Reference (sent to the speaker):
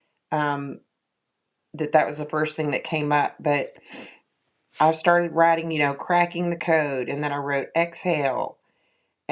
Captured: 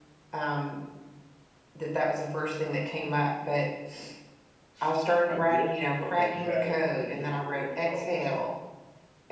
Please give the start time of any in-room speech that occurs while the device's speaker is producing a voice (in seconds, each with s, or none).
5.3 s